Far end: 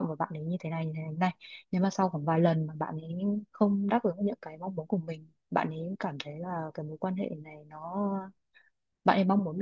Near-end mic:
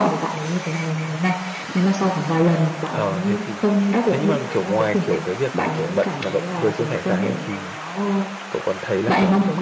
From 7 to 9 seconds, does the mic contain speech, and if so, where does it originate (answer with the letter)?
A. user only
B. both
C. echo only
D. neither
B